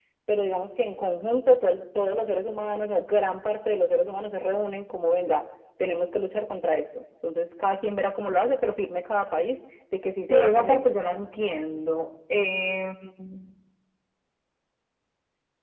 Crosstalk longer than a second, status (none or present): none